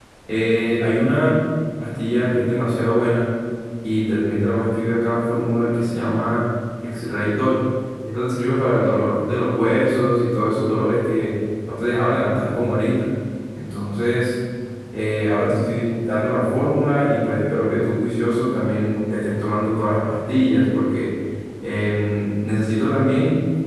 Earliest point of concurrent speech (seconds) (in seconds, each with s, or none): none